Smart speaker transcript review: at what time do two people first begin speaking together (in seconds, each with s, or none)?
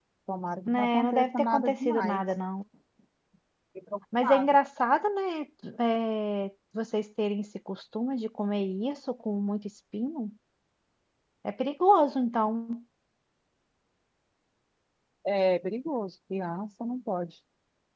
0.7 s